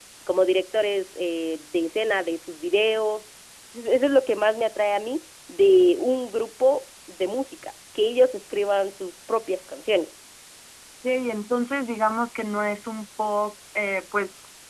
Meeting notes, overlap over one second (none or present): none